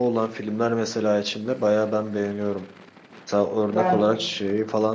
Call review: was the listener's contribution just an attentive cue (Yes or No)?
Yes